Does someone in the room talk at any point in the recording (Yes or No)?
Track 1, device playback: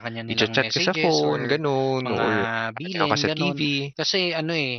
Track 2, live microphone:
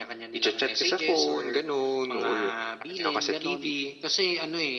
No